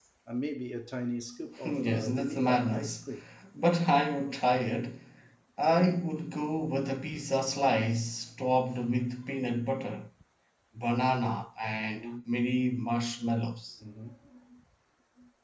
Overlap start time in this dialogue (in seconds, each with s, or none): 1.6 s